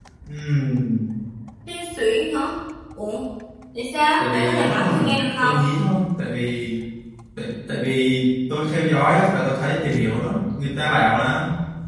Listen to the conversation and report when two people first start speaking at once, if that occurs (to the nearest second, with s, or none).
4 s